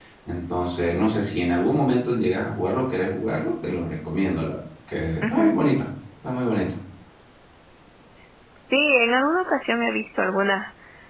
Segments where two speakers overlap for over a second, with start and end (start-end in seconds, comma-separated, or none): none